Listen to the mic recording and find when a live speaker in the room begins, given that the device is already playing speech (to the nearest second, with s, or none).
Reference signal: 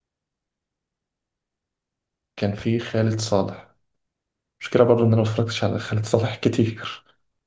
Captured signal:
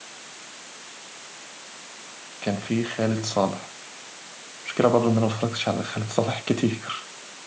none